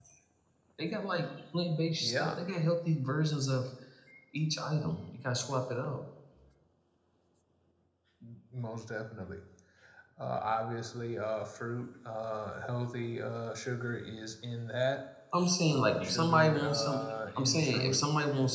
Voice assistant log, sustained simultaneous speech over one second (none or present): present